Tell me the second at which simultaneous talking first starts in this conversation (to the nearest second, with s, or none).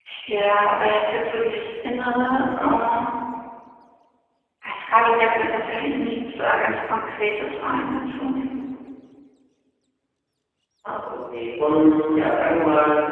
none